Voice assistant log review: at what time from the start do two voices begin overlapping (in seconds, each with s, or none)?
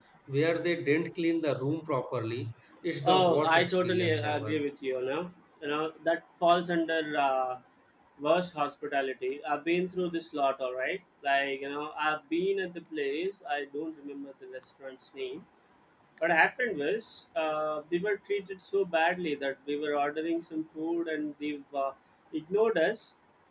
3.0 s